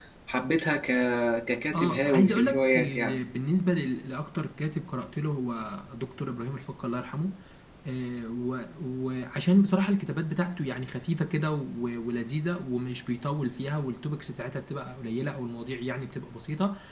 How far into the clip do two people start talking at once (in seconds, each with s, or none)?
1.7 s